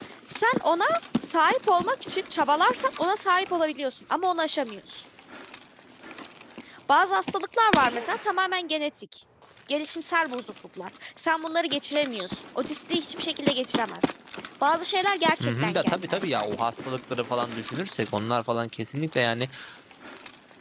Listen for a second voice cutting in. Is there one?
Yes, from 15.4 s

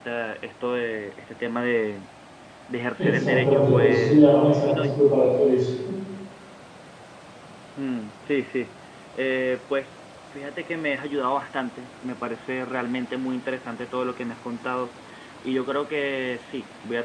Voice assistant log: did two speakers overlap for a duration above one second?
Yes, from 3.0 s

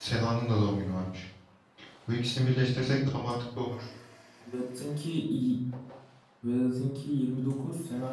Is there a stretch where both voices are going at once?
No

